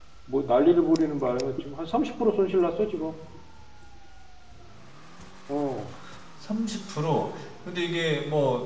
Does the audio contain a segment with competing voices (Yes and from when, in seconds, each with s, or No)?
No